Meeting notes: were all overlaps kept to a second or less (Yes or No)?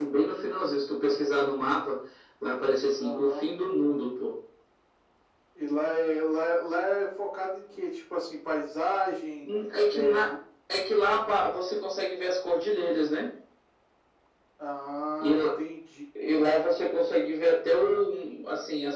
Yes